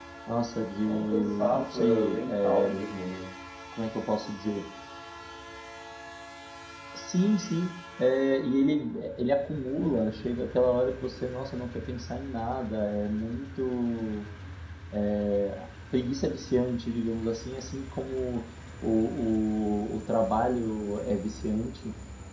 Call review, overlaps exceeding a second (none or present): present